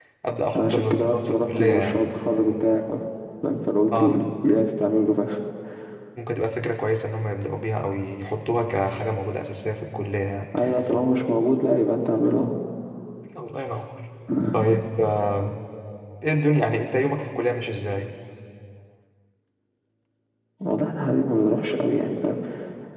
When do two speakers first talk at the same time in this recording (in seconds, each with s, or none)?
0.6 s